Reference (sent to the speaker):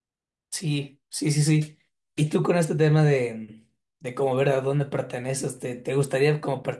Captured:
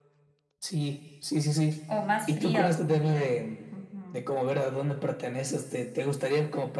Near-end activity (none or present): present